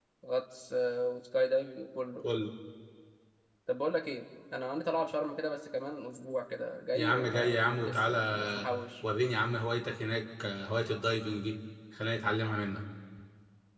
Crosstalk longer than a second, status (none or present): present